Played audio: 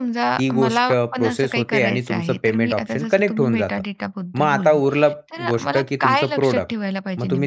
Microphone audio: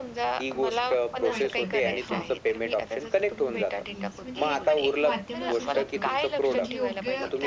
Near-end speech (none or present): present